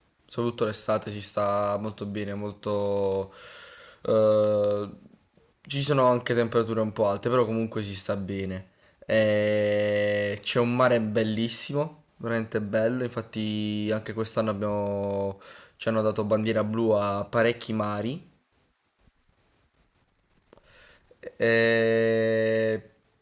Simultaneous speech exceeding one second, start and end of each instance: none

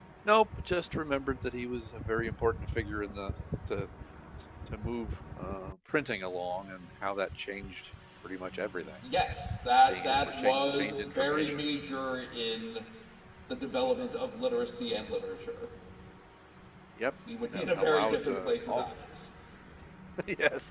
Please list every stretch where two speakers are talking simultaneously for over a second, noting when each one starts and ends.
9.9-11.6, 17.5-18.8

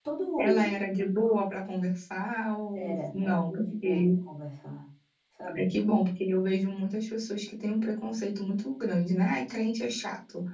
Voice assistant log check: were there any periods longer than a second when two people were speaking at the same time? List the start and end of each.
2.8-4.1

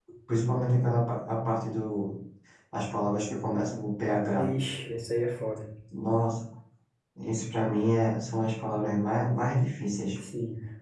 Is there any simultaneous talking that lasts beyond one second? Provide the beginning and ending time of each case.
none

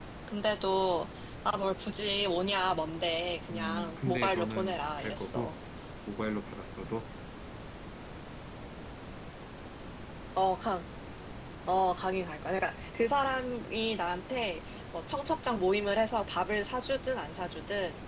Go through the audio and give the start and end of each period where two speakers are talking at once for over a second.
3.5-5.5

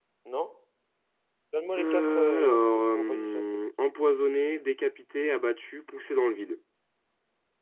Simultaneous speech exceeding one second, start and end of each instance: 1.8-3.5

